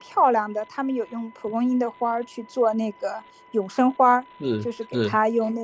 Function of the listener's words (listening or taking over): listening